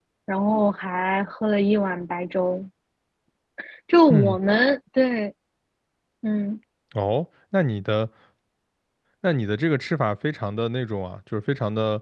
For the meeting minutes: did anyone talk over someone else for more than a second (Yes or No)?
No